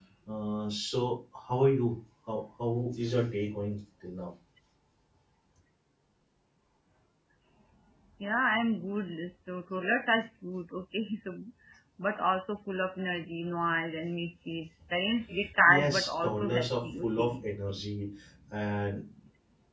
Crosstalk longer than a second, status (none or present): present